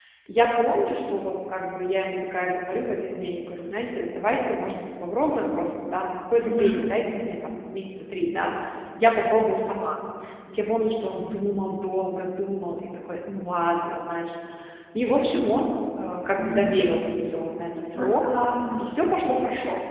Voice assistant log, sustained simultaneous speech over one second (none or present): none